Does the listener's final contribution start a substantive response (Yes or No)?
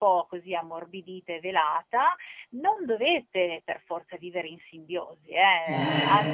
No